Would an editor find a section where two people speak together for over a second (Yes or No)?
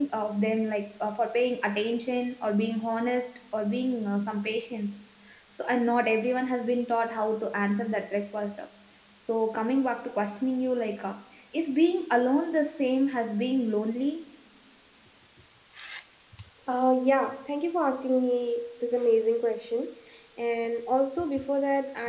No